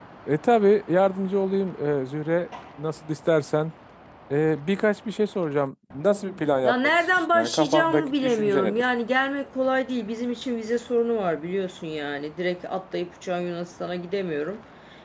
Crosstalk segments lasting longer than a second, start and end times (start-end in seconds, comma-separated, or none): 6.6-8.8